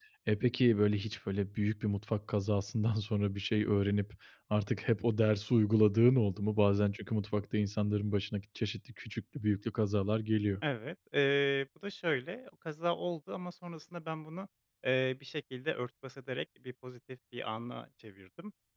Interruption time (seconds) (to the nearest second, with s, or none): none